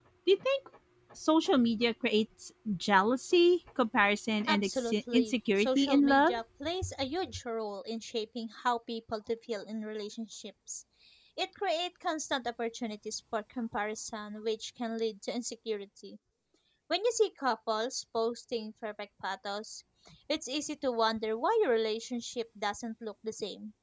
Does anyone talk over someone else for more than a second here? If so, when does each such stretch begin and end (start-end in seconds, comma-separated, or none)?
4.5-6.3